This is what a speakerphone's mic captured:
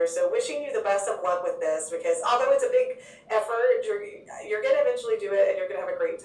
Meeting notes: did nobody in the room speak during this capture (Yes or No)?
Yes